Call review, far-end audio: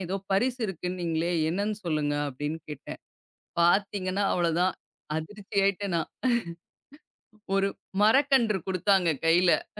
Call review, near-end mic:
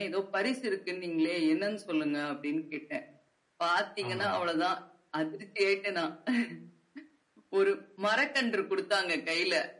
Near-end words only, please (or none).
ஆமாங்க.